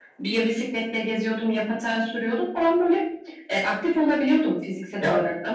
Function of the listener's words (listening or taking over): taking over